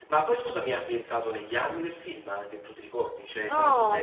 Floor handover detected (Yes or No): Yes